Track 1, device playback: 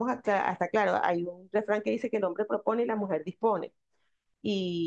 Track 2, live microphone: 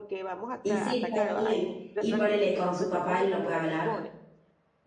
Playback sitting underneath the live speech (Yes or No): Yes